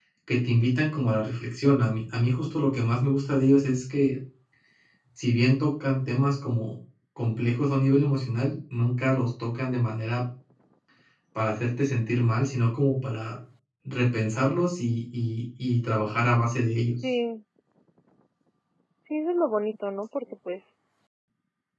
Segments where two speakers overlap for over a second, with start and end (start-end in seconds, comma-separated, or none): none